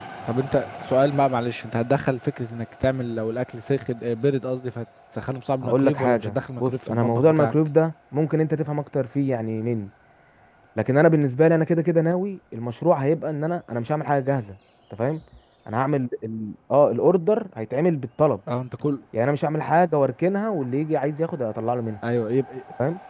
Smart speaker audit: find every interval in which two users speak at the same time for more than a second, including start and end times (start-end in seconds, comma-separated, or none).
5.6-7.5